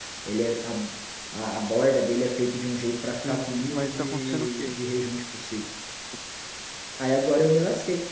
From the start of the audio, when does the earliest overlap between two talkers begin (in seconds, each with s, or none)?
3.2 s